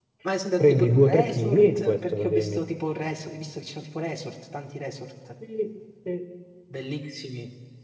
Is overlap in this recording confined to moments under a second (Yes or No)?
No